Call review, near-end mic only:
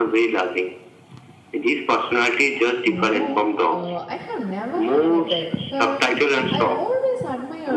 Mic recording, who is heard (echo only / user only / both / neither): both